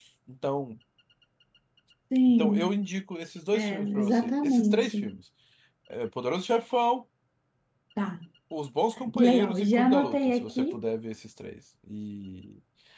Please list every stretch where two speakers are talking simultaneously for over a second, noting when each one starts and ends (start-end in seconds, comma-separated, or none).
3.5-5.0, 9.2-10.8